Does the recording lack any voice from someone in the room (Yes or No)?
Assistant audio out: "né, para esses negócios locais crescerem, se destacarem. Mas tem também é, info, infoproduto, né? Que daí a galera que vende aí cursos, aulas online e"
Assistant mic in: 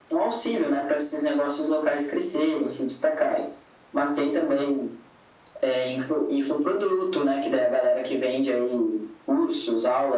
Yes